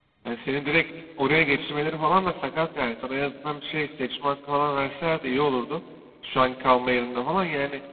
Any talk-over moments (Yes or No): No